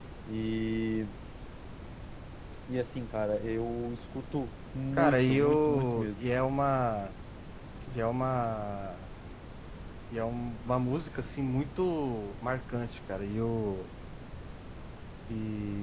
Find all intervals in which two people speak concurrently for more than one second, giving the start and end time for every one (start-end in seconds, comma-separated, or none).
4.9-6.2